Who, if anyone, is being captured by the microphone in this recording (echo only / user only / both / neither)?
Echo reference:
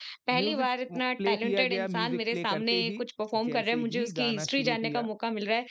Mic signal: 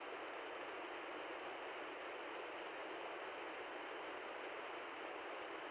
neither